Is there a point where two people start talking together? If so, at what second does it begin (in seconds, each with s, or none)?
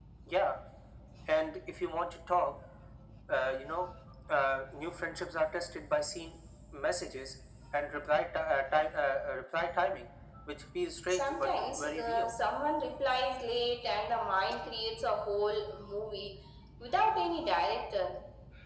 11.1 s